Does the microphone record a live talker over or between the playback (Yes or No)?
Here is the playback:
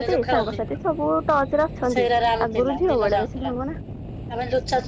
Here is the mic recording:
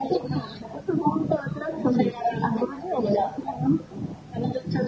No